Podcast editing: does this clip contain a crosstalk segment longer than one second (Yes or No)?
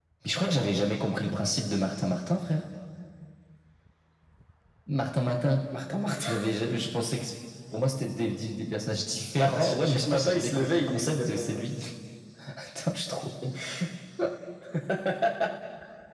Yes